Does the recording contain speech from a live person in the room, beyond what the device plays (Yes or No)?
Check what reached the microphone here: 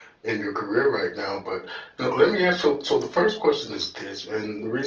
No